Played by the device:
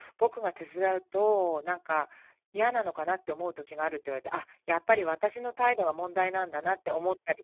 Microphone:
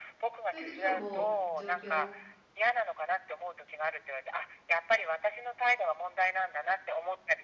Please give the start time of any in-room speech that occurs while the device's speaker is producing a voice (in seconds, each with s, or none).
0.5 s